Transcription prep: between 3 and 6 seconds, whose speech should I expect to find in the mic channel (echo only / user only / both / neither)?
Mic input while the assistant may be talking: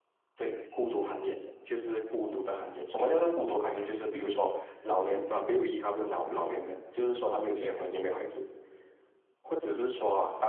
echo only